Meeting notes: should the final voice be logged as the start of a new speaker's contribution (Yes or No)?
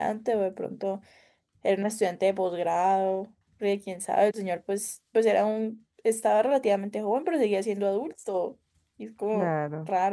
Yes